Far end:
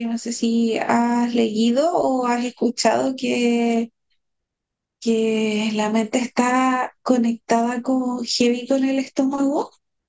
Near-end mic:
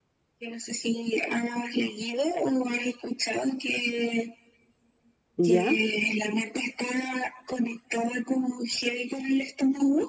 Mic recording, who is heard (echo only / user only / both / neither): both